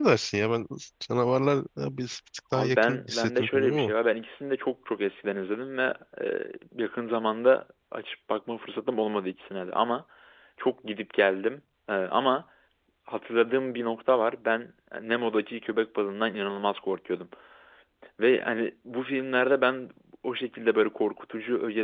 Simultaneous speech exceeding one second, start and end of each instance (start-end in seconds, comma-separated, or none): 2.5-3.9